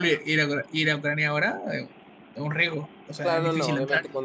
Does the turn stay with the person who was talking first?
No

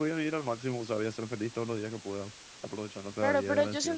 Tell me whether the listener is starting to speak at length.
Yes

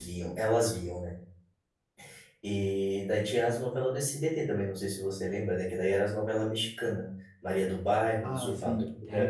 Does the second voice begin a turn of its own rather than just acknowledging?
Yes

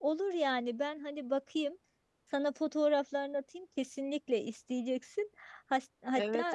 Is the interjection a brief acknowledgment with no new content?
No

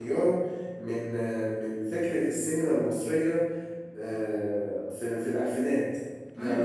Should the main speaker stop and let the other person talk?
No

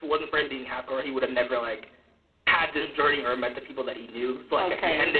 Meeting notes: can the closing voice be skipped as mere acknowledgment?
No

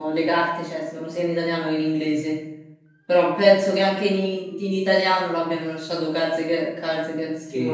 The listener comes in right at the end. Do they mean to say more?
Yes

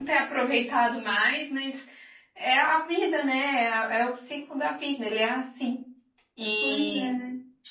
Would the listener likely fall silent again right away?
No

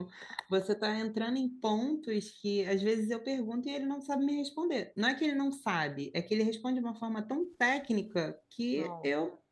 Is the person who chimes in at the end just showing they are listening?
Yes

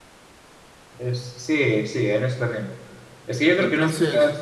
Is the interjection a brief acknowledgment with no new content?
Yes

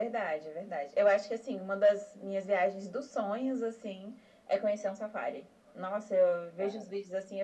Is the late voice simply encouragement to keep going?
Yes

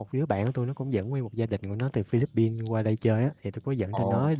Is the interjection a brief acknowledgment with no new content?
Yes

